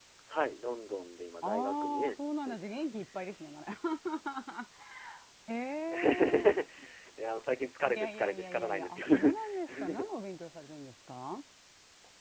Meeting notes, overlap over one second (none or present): present